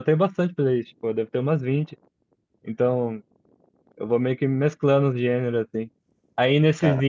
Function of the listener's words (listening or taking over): listening